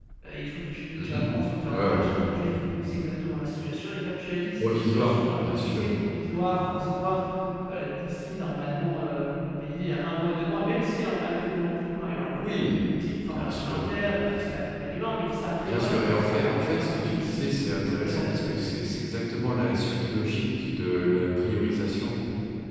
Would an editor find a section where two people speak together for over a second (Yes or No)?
Yes